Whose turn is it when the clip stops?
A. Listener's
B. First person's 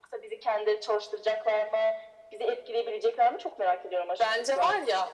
A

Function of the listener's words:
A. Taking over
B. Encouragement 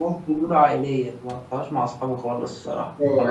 A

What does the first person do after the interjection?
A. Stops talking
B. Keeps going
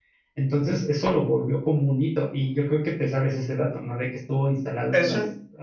B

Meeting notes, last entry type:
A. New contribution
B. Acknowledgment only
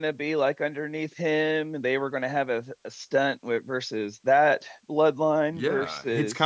A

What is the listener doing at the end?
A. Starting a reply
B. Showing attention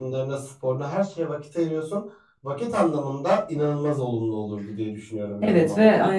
A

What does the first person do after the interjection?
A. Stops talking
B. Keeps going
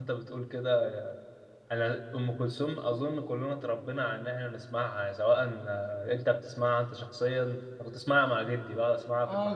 A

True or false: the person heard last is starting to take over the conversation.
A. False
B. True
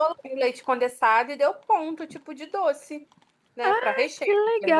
B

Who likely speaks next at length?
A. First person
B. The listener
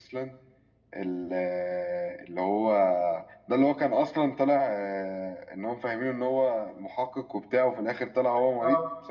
B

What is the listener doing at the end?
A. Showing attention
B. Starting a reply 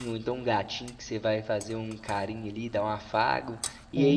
A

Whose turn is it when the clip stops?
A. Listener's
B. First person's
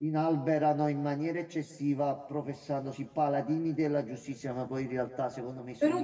A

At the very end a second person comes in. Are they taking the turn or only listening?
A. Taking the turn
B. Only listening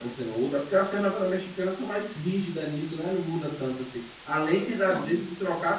B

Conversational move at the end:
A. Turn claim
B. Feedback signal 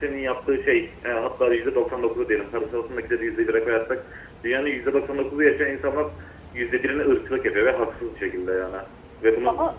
B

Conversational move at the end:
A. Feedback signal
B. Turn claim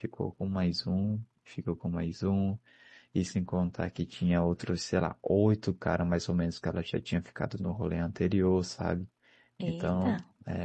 A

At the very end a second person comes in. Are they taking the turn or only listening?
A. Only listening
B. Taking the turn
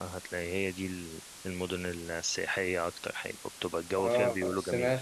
B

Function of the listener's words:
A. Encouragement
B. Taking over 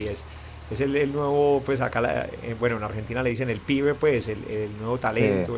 A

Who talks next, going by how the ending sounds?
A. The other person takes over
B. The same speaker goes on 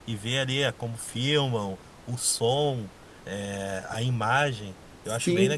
A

